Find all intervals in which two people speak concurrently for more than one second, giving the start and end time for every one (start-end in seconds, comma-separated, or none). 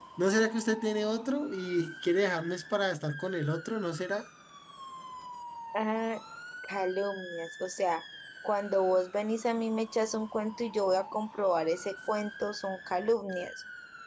none